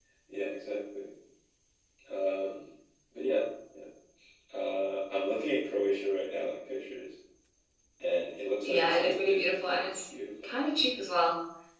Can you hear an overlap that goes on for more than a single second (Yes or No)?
Yes